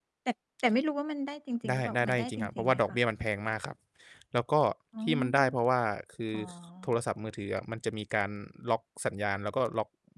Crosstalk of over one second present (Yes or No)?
Yes